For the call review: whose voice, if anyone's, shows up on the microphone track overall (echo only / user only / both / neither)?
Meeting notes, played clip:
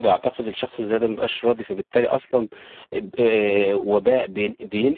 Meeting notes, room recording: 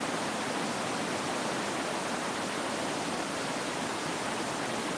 neither